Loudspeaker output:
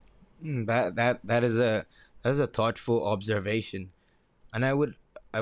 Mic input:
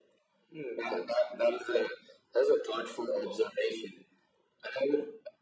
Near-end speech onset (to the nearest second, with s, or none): none